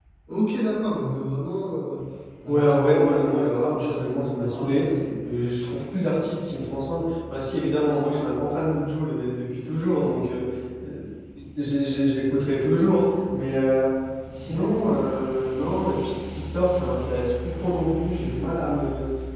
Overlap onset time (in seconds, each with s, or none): 2.5 s